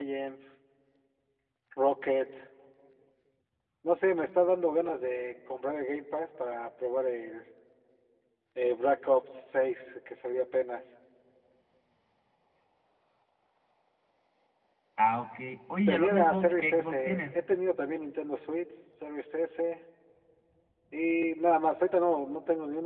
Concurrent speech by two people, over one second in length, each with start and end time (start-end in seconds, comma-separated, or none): 15.9-17.4